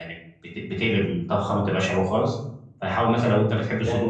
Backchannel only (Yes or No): No